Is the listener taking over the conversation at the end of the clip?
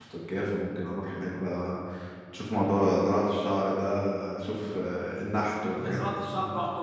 Yes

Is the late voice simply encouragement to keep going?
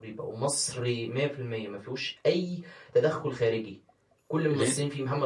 Yes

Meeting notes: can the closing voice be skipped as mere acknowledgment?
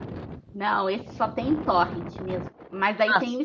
Yes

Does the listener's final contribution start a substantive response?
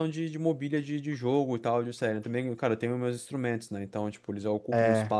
No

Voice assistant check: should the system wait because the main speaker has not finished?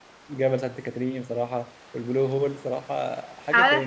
No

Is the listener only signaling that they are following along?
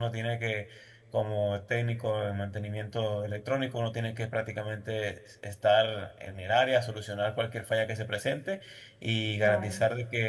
Yes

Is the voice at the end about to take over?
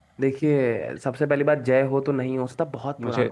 No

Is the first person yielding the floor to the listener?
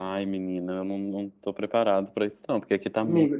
Yes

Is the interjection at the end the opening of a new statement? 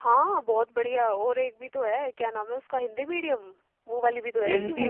Yes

